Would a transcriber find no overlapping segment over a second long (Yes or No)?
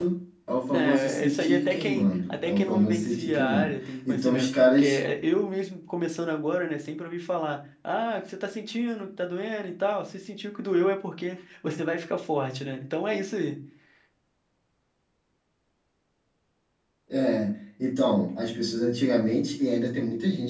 No